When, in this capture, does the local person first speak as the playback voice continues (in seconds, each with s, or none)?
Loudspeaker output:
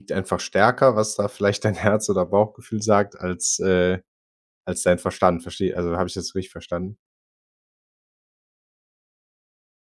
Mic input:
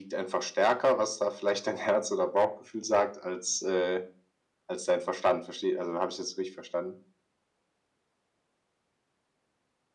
none